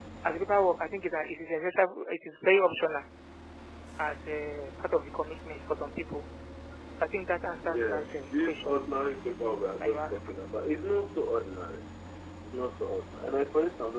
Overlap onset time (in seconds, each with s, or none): 7.7 s